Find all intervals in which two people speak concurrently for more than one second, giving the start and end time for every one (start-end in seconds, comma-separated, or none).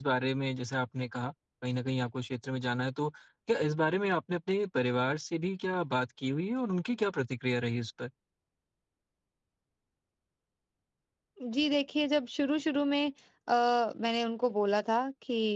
none